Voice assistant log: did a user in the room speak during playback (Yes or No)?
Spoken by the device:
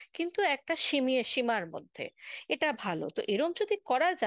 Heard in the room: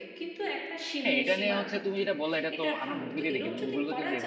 Yes